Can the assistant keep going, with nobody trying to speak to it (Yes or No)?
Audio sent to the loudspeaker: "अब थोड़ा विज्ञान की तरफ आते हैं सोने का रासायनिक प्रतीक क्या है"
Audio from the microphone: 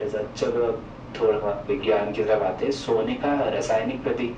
Yes